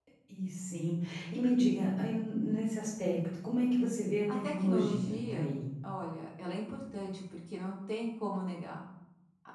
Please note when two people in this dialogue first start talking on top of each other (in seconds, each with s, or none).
4.3 s